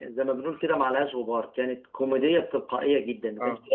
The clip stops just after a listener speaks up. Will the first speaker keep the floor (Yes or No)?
Yes